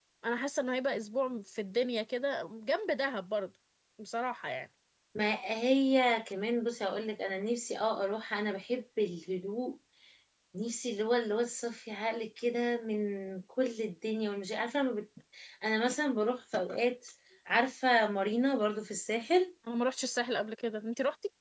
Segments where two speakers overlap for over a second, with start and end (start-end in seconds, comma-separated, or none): none